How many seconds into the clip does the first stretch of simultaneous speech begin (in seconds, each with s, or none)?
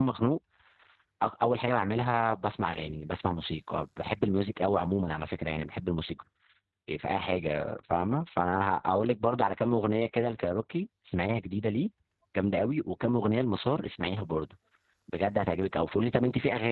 none